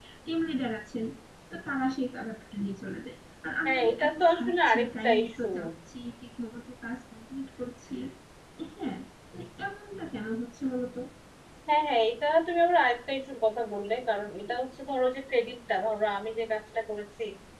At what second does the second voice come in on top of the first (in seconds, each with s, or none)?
3.6 s